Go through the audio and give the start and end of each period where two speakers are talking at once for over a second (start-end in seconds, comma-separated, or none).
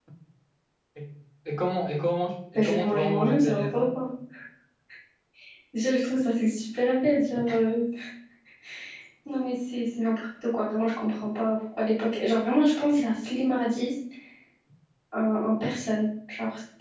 2.5-4.0